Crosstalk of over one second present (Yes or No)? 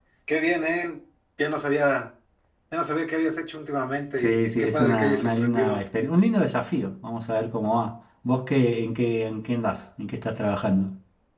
Yes